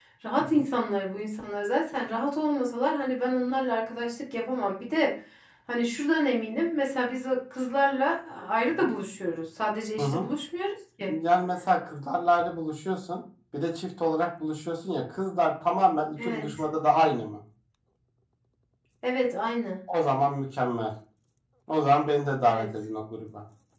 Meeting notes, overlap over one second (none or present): none